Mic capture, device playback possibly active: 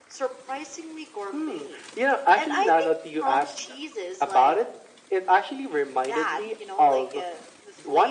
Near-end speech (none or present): none